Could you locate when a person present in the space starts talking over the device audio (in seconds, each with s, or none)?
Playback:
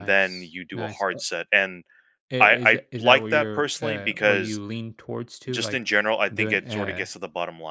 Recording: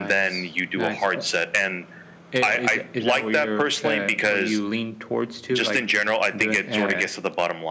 none